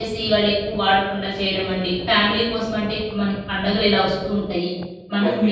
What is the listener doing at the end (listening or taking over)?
listening